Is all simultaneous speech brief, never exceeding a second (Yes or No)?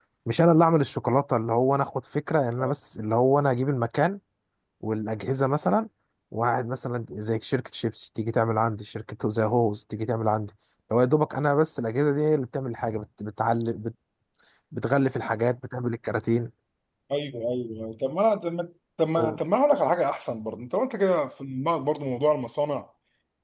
Yes